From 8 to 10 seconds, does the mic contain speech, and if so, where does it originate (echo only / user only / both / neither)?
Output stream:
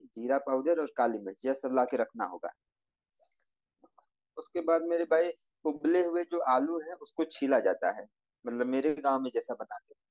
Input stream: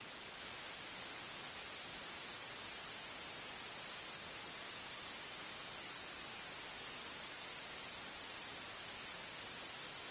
neither